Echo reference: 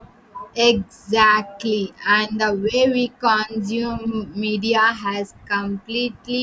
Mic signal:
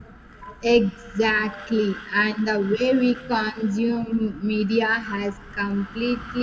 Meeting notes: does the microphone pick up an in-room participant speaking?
No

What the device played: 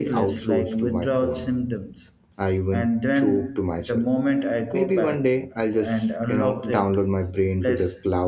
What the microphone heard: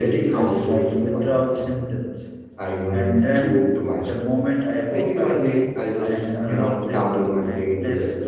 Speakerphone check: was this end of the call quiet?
No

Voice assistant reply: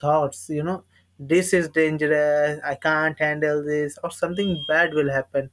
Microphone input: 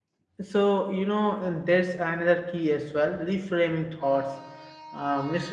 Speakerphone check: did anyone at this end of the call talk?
Yes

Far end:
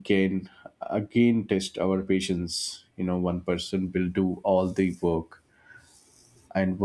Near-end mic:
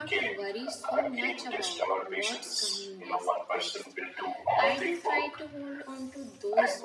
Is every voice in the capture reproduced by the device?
No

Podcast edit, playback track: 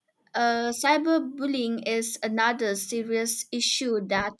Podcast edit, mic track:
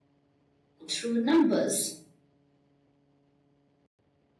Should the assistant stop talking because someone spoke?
Yes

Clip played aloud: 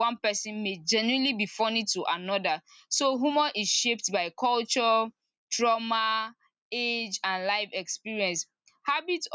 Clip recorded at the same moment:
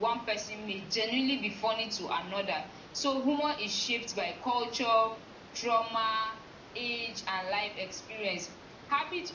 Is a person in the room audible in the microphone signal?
No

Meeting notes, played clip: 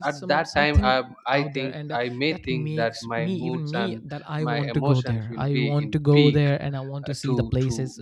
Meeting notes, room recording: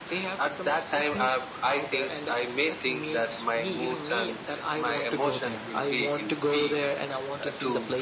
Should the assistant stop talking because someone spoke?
No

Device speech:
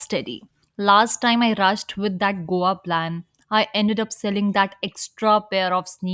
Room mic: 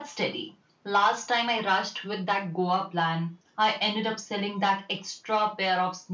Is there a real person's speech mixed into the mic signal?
No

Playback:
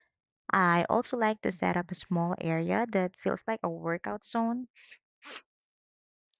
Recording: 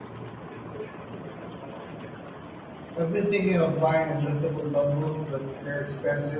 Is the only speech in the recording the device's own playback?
No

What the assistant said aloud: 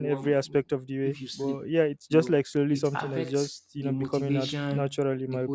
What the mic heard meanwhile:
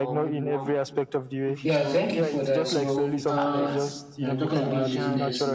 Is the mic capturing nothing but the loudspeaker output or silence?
No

